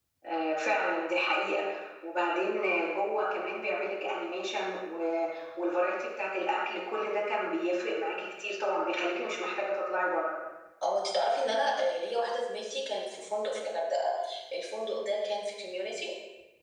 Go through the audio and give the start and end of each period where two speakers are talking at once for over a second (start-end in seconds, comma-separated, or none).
none